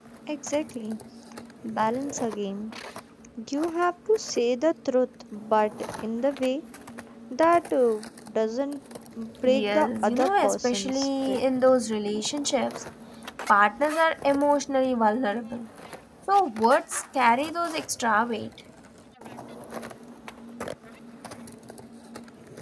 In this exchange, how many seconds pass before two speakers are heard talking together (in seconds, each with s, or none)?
9.4 s